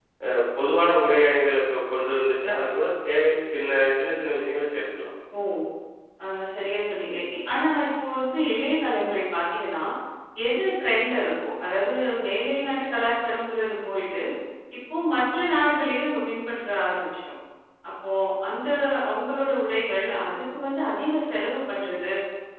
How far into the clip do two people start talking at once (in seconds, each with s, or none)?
none